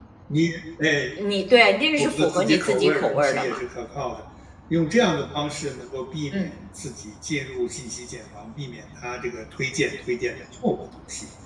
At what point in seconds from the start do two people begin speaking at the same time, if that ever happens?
2 s

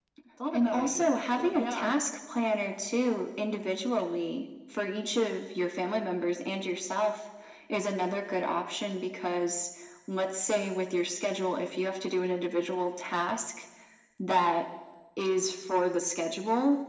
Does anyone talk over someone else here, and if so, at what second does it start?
1 s

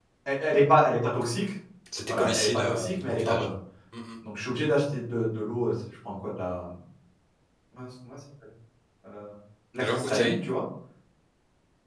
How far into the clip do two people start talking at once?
2 s

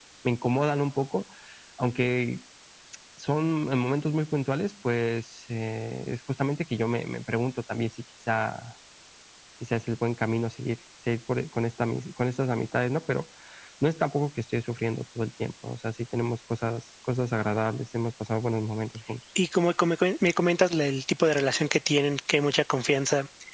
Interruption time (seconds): none

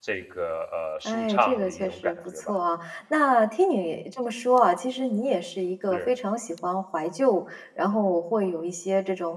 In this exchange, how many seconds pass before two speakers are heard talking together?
1 s

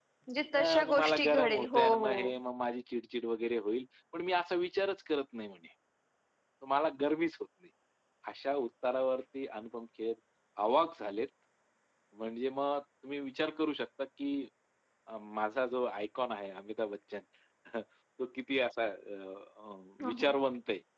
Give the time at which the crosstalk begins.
1 s

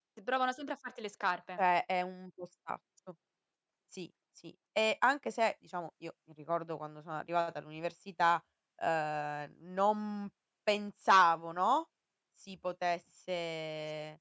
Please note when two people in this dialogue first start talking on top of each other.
none

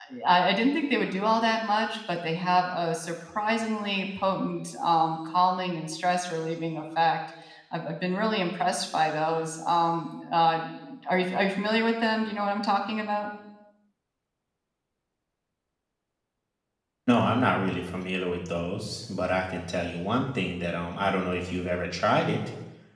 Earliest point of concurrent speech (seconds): none

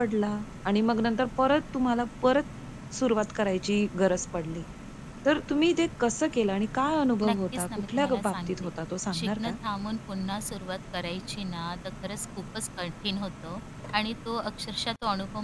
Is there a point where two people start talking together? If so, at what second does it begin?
7 s

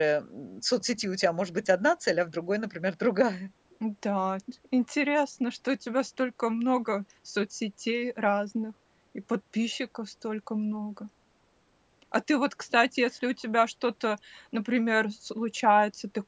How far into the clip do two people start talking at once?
none

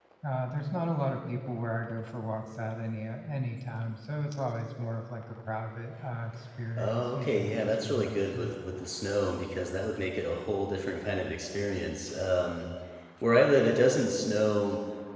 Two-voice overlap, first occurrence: 7 s

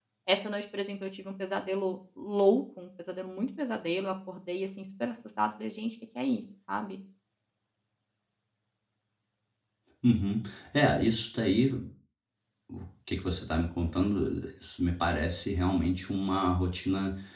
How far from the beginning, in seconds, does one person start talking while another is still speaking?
none

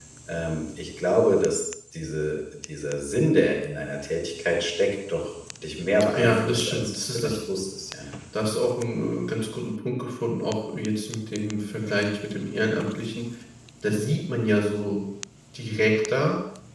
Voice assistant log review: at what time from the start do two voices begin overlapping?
6 s

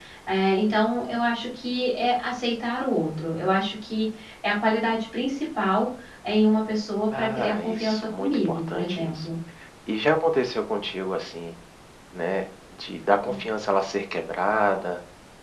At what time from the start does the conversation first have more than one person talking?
7 s

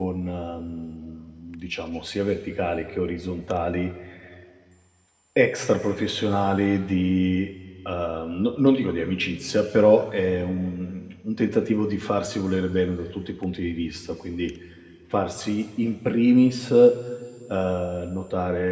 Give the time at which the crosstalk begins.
none

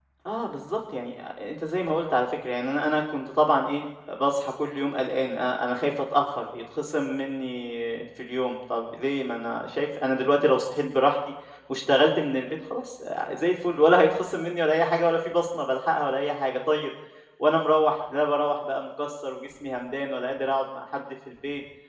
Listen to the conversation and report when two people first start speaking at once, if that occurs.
none

